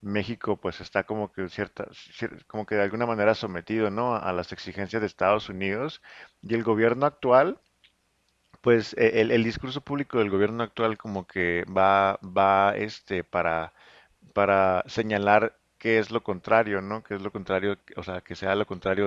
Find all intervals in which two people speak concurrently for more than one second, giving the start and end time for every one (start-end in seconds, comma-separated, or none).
none